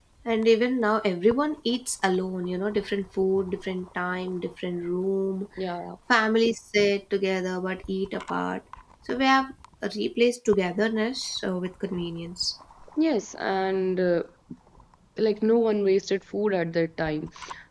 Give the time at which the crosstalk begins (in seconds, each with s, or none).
none